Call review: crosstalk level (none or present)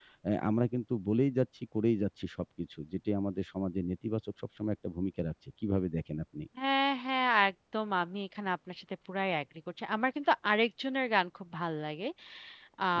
none